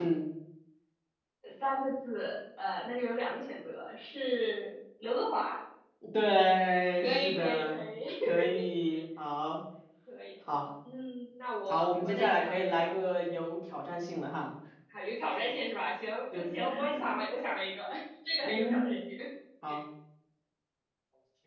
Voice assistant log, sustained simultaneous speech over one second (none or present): present